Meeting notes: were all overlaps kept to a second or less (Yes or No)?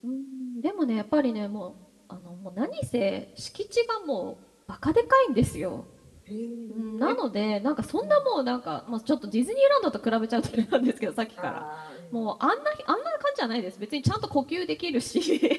Yes